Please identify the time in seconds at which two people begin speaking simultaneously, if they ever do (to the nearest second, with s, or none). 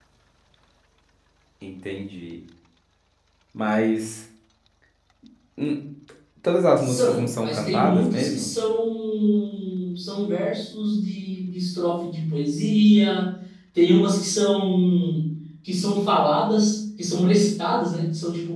7 s